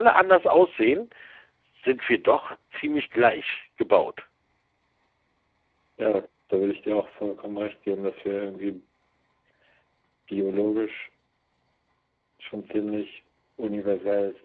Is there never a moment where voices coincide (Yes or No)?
Yes